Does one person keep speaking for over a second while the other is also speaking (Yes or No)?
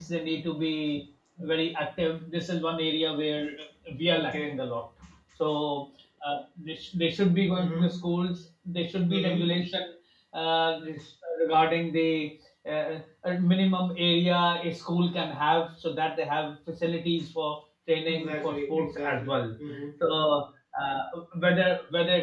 Yes